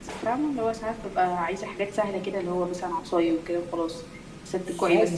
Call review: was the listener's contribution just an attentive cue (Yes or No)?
No